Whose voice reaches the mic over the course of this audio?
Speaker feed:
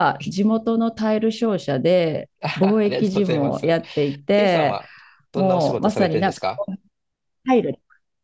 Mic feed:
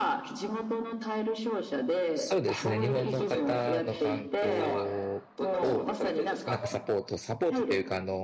both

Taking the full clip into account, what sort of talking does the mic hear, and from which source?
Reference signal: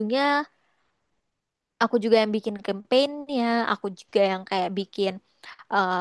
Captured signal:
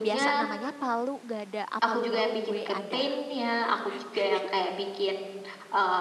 both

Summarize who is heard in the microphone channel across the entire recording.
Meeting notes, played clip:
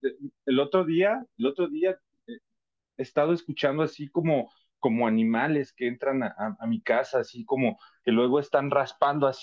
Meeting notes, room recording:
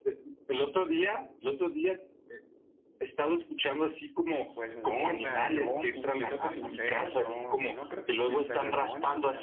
both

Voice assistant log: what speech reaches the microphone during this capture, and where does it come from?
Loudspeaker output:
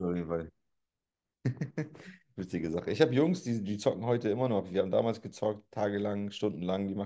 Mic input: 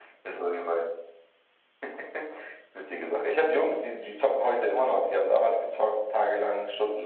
echo only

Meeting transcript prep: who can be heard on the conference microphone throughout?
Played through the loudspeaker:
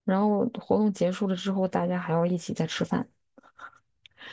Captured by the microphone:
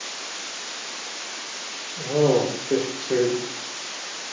user only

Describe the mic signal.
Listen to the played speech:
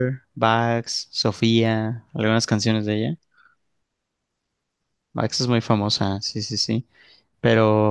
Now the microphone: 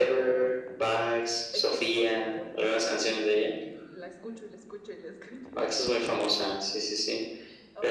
both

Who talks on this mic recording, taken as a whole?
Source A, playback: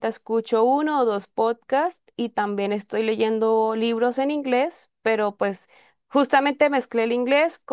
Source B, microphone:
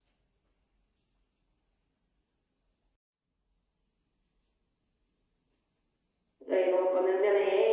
user only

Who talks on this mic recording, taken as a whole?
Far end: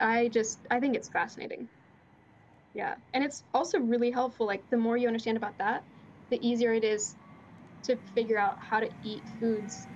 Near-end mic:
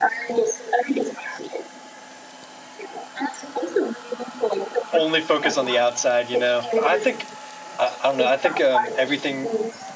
both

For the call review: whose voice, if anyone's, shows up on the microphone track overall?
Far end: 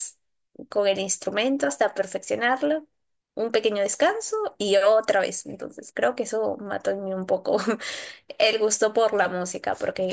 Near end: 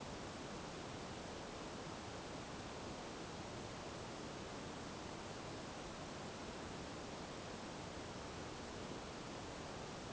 neither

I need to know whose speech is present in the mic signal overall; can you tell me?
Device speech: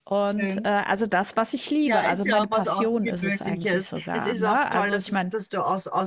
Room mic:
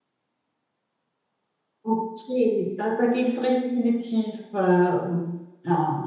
user only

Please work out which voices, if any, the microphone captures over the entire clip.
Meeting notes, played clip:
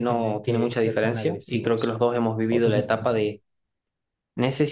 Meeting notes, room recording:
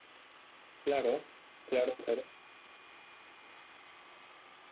user only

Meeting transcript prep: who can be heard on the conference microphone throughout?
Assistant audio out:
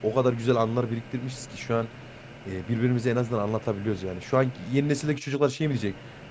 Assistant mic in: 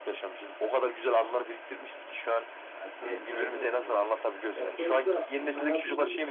both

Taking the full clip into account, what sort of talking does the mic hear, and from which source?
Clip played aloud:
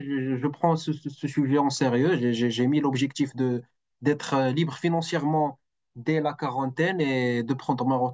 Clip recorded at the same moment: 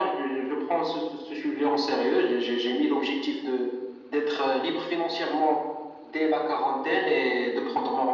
echo only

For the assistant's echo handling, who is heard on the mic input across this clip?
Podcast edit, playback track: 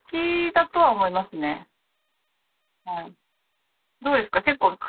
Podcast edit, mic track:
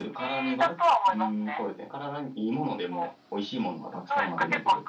both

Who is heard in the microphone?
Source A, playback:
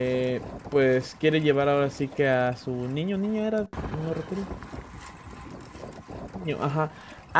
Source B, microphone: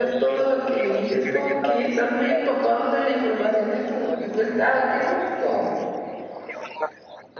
both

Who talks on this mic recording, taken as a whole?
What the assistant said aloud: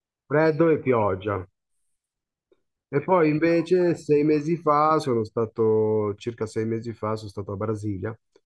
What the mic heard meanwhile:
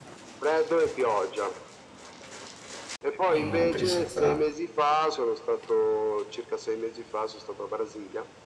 both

